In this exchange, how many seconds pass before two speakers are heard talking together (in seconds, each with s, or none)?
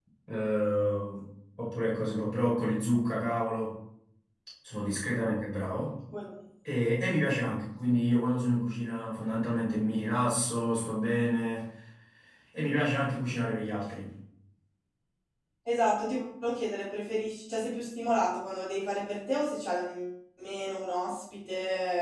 none